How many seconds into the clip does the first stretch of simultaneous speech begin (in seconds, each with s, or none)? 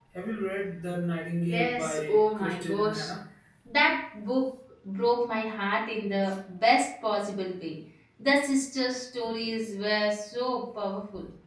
1.5 s